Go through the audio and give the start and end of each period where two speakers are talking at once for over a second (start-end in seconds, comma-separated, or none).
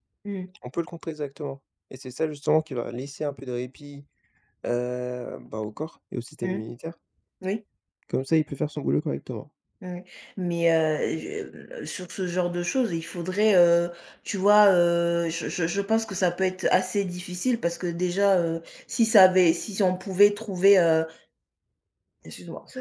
none